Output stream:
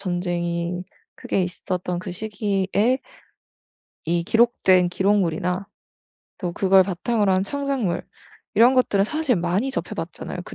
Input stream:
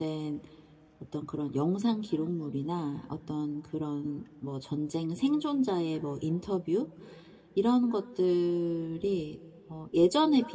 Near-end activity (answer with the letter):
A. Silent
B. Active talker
B